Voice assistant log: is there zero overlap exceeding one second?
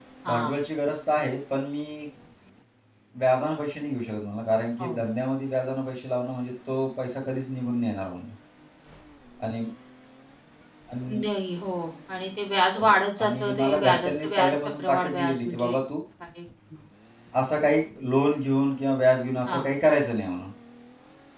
No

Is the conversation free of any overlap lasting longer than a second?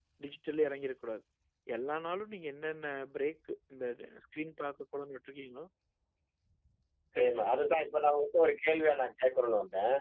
Yes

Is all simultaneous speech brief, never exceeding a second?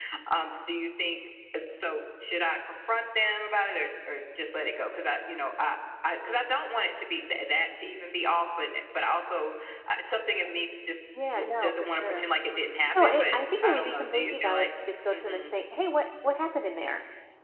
No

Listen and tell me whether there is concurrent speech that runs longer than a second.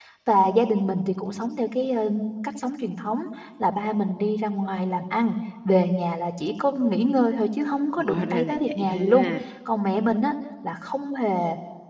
Yes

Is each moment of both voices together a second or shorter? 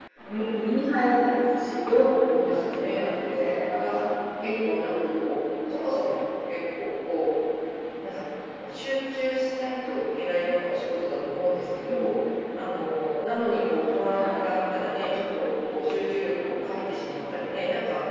No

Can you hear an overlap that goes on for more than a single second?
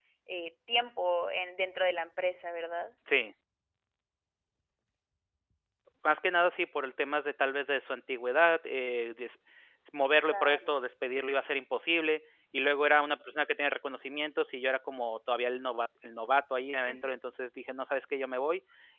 No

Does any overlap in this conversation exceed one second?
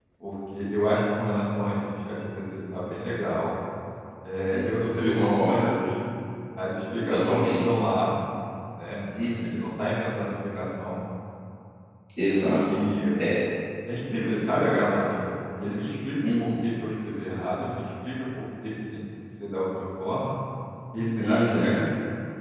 Yes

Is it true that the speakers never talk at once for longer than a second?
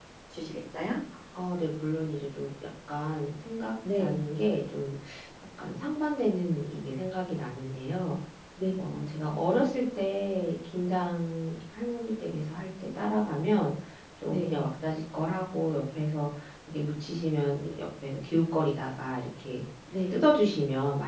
Yes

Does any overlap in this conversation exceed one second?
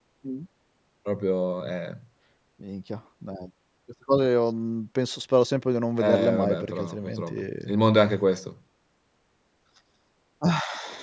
Yes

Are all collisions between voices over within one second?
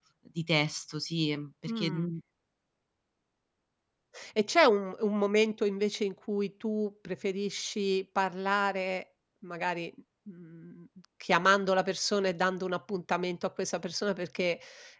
Yes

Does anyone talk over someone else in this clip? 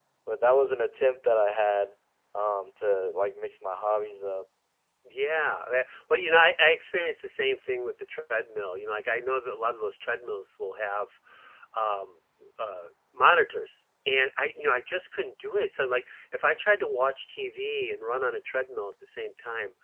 No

